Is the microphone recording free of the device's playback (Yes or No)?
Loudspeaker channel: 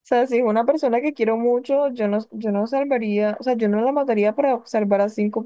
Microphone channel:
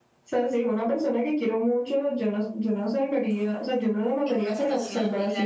No